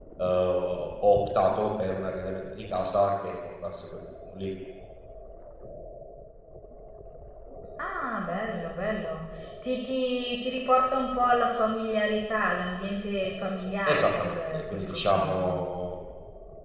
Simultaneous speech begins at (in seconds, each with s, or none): 13.8 s